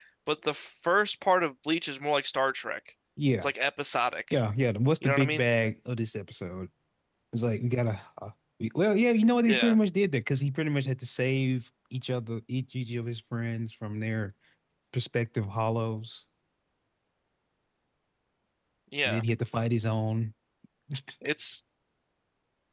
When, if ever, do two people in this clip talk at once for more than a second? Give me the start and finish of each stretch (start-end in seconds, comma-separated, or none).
none